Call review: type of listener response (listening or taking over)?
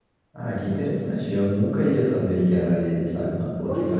listening